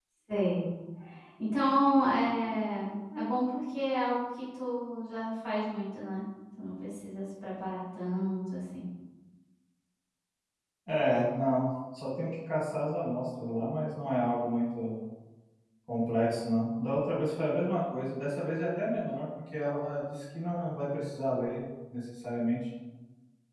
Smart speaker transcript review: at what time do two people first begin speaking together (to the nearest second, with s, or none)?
none